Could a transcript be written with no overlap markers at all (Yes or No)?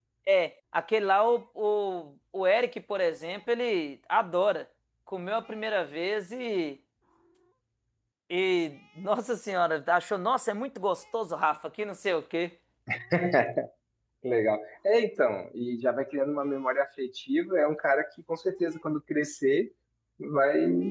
Yes